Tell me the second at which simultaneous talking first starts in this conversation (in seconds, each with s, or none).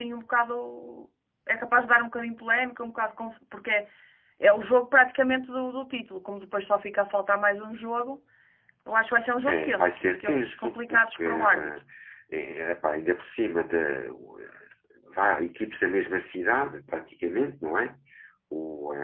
9.5 s